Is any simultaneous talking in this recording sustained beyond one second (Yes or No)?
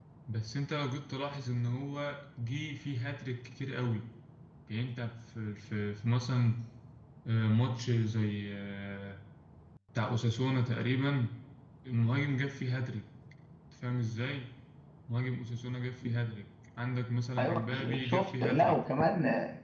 Yes